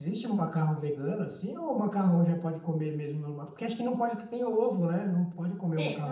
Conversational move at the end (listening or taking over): taking over